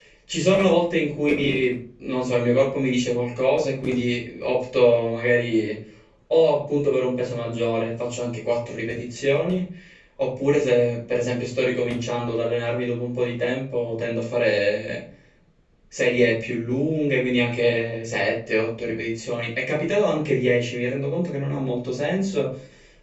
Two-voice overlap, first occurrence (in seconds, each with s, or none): none